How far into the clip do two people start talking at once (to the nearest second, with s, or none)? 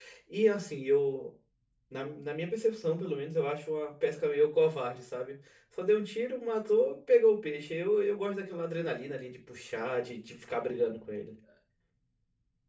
none